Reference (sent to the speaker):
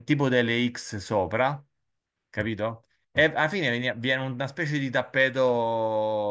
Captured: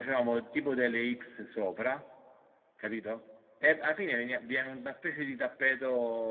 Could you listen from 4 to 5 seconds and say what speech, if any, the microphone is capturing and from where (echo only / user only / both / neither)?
echo only